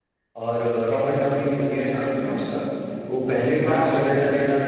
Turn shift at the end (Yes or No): No